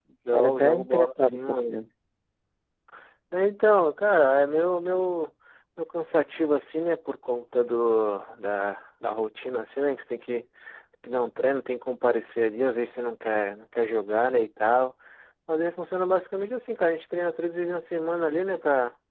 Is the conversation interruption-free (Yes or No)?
No